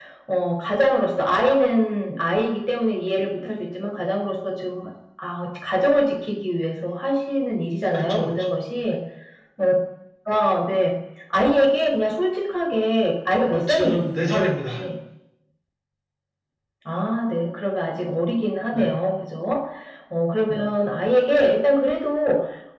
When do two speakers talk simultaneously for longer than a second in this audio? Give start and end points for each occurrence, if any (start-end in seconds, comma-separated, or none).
13.5-14.8